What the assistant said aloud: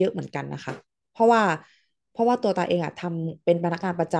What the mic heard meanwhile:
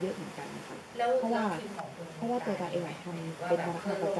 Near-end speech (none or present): present